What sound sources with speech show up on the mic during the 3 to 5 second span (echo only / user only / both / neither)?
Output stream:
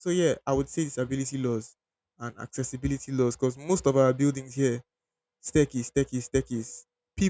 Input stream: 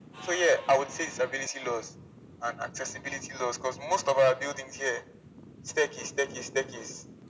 echo only